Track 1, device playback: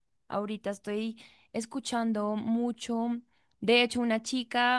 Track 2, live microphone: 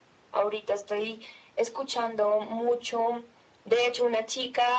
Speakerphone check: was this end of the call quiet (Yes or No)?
Yes